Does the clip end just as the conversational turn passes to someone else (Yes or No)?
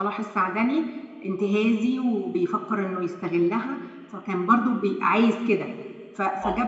No